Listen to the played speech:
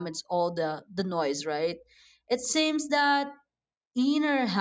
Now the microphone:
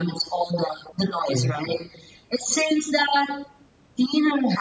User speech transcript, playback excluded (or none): mhm, Yes.